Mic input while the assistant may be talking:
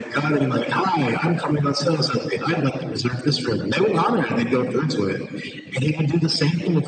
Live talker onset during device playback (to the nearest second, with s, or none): none